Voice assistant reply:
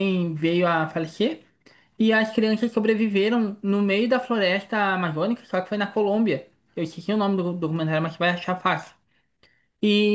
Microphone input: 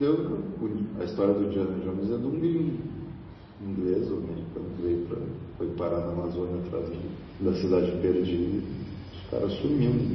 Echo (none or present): none